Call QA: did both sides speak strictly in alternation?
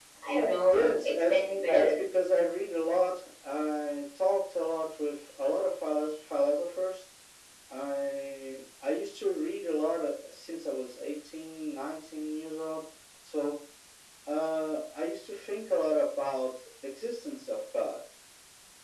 No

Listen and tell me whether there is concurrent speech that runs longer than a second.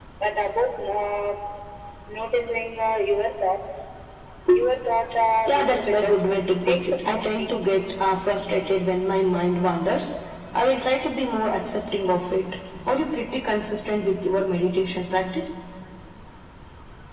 Yes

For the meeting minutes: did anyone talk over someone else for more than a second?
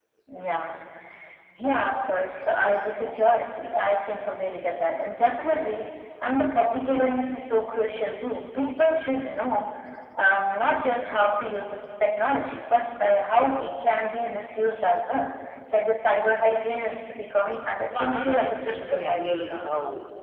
Yes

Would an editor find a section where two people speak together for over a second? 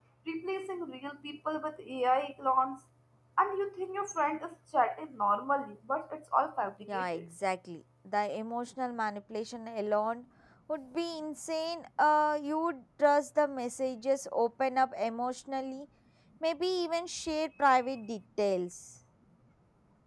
No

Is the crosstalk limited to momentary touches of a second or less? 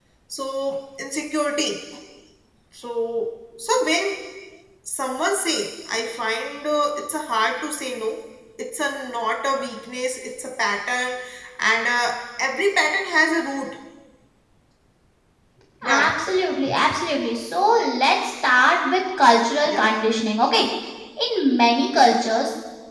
Yes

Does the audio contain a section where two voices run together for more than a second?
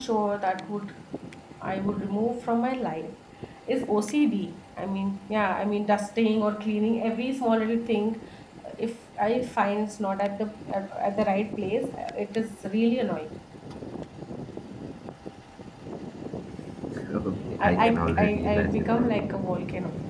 Yes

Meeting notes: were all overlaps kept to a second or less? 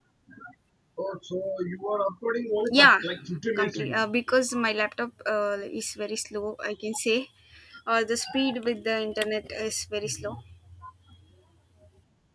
Yes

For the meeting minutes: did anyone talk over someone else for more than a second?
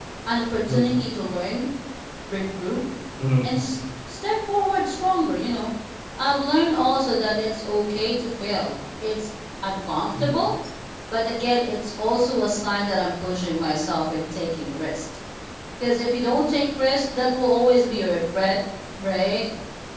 No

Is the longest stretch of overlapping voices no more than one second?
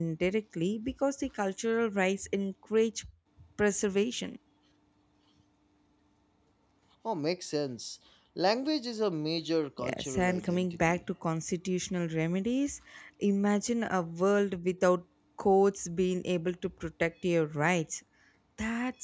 No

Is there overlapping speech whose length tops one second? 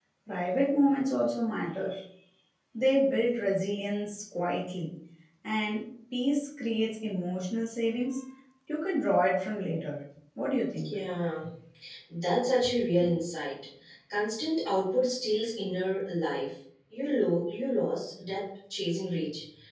No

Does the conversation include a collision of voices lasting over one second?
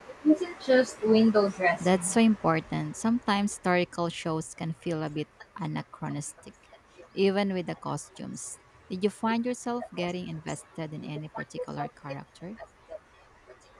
No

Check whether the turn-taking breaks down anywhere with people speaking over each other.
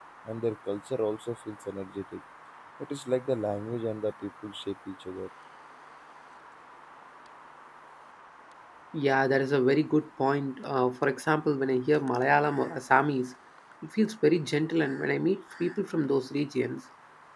No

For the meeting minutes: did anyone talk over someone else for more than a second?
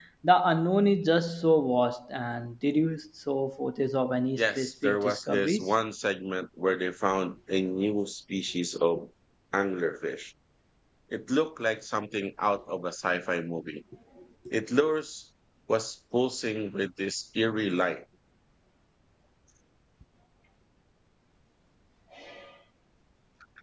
Yes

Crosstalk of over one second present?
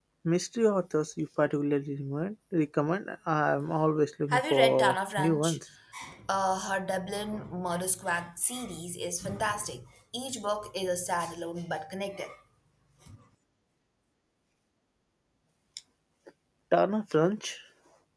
Yes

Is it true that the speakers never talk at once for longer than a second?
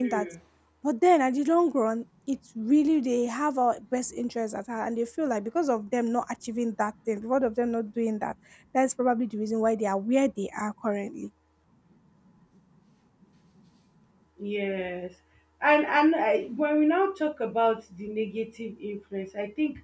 Yes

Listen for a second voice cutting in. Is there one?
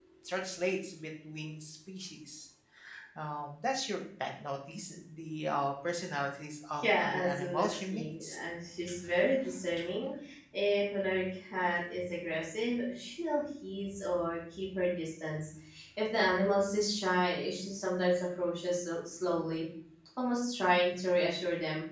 Yes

